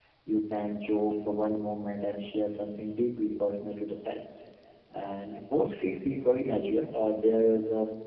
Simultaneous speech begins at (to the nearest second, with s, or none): none